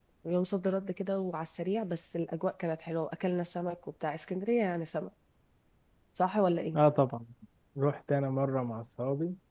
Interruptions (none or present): none